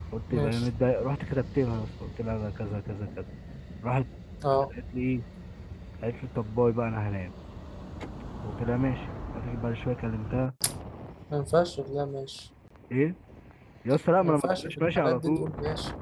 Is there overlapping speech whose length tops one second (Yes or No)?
Yes